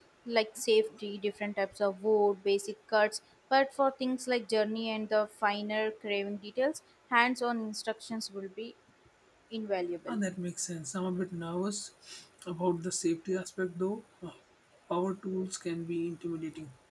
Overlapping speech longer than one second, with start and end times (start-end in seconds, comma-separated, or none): none